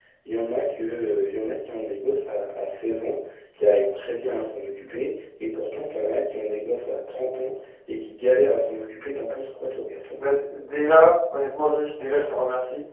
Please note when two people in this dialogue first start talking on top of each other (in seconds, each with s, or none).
none